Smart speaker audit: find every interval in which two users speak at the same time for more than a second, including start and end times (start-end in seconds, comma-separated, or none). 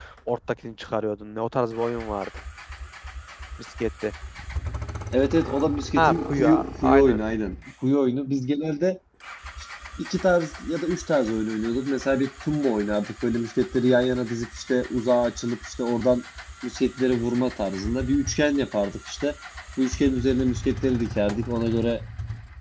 6.0-7.2